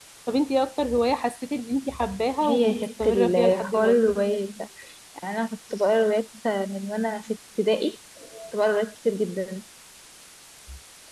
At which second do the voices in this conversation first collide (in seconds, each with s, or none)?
2.4 s